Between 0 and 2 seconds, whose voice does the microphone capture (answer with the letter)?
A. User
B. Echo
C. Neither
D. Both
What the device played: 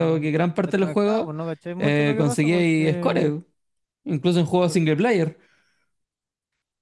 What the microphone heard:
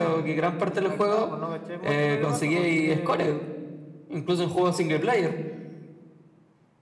B